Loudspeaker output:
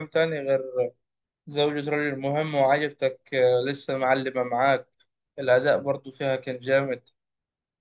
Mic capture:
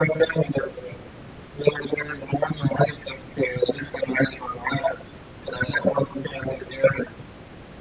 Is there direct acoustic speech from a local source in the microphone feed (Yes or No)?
No